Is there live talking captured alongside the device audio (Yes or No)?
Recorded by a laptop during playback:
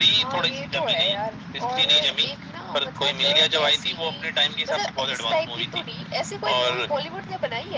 No